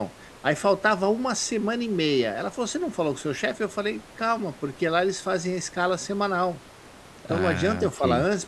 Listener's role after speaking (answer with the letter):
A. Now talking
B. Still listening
B